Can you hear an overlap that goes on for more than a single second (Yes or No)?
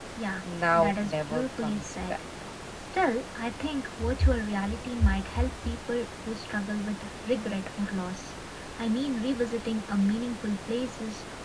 Yes